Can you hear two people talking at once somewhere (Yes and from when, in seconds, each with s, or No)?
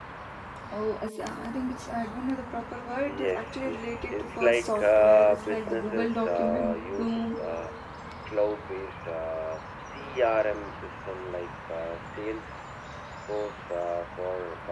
Yes, from 3.0 s